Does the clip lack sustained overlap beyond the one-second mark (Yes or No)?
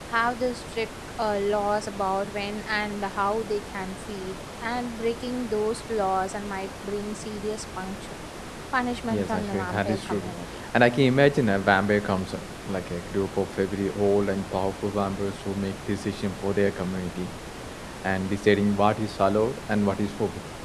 No